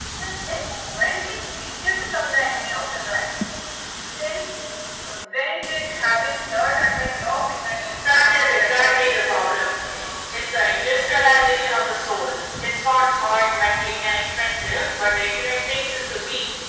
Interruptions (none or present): present